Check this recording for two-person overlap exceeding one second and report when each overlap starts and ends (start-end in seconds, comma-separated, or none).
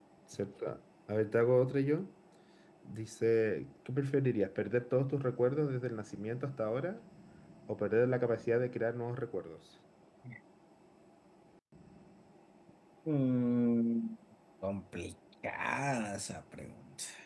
none